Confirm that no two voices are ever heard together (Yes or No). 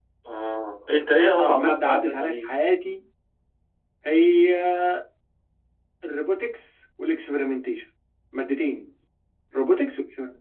No